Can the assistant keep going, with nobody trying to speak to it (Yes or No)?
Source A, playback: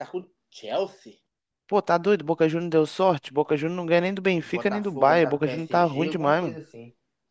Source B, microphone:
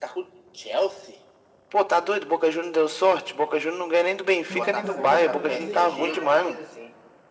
No